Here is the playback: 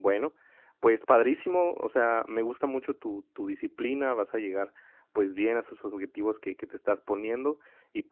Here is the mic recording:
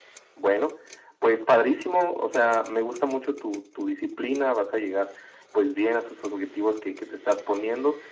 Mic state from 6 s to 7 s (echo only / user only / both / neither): echo only